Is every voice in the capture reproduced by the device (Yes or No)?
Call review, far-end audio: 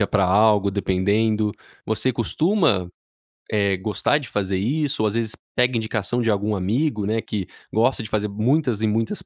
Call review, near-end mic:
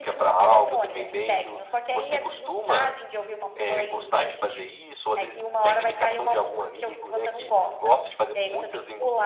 No